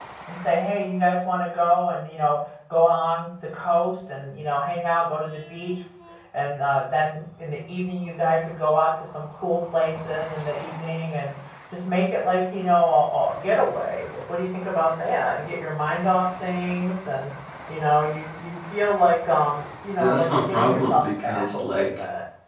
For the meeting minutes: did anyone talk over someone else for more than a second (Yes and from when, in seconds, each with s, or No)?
Yes, from 20.0 s